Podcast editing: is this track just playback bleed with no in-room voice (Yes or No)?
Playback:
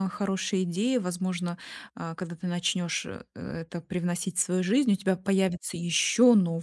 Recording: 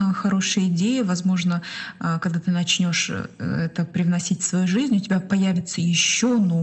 Yes